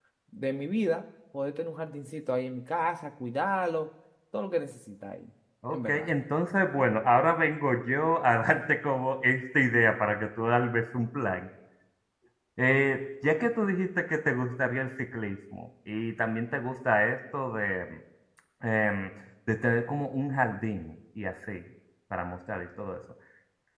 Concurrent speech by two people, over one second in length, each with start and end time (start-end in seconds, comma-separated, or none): none